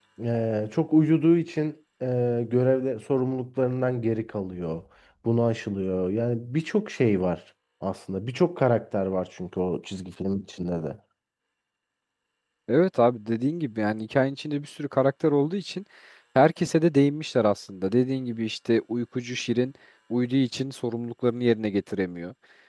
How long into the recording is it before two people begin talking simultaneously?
none

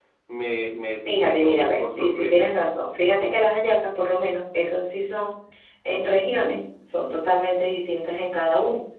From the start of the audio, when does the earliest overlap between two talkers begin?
1.1 s

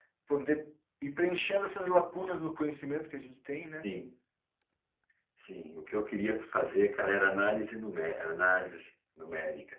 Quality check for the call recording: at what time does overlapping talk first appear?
none

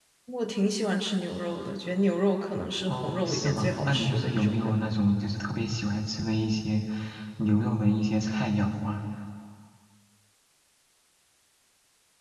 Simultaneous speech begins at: 2.9 s

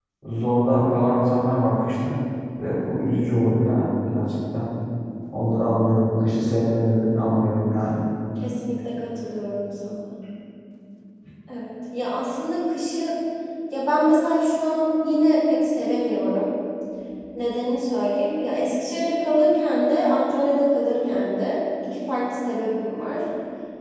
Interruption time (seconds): none

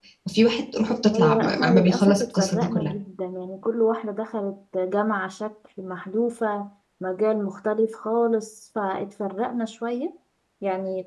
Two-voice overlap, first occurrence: 1.1 s

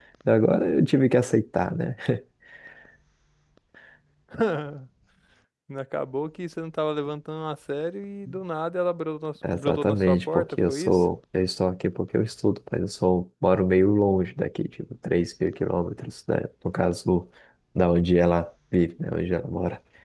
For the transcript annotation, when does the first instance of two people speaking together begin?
9.4 s

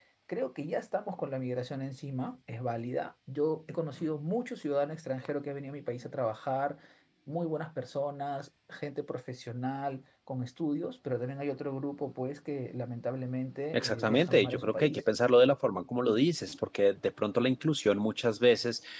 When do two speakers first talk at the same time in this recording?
13.7 s

